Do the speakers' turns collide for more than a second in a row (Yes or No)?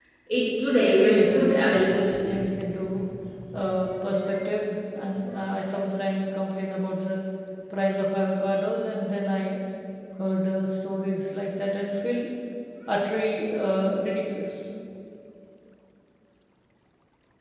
Yes